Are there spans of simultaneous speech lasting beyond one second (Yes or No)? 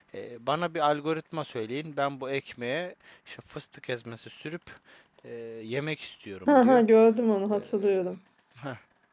No